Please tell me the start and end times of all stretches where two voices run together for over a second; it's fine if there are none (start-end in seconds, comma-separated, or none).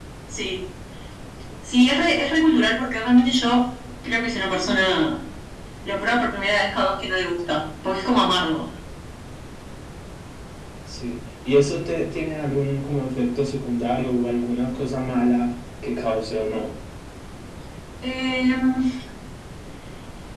none